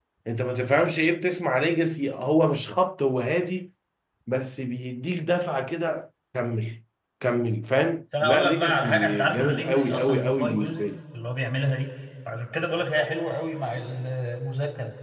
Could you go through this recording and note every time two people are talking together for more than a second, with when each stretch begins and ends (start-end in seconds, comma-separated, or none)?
8.2-10.8